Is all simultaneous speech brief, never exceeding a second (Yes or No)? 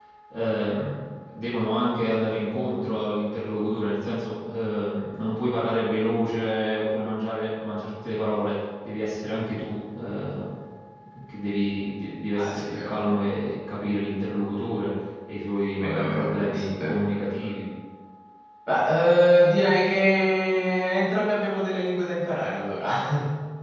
No